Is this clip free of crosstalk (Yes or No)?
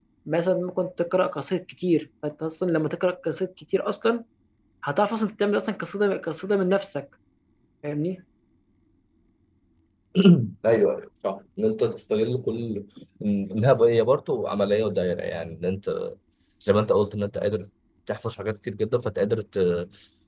Yes